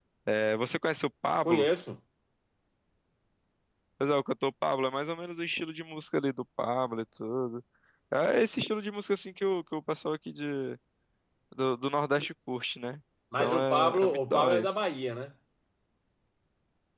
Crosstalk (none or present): present